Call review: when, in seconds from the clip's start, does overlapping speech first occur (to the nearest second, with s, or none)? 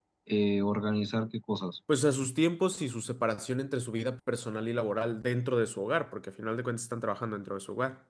none